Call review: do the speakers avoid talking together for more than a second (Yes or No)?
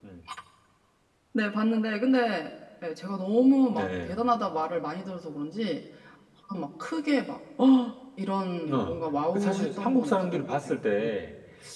No